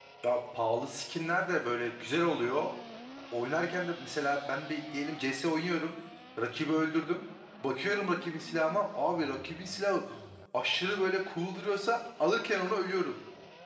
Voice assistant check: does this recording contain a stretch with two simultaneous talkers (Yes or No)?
No